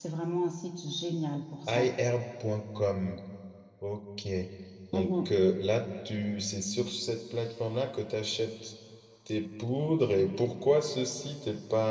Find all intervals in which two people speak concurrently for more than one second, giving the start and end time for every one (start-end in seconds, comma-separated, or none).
none